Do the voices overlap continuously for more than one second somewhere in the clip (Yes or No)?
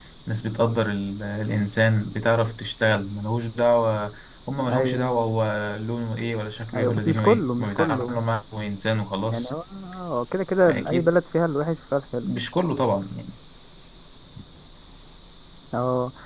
Yes